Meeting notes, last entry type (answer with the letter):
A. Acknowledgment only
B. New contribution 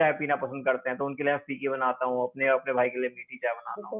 B